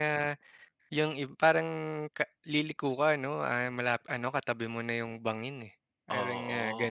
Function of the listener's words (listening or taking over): taking over